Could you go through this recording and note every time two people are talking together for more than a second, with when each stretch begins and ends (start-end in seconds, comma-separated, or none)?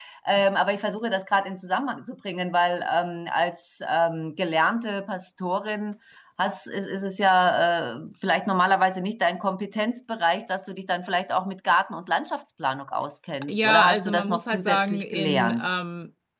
13.5-15.7